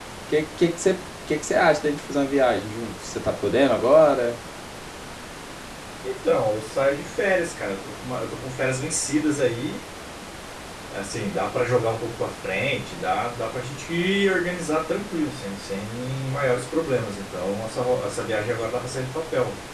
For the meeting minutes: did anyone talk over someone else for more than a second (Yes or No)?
No